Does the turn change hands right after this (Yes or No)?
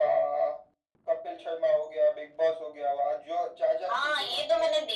Yes